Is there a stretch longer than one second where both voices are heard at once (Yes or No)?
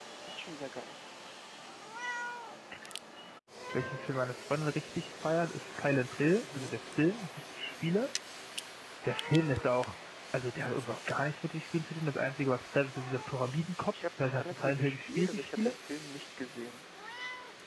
Yes